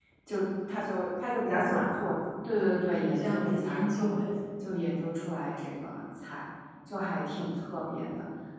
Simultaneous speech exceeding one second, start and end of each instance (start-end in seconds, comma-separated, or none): 2.6-4.1